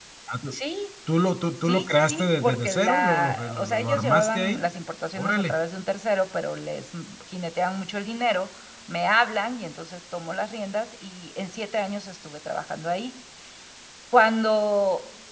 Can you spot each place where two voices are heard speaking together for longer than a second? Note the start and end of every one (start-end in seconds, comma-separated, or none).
1.6-4.6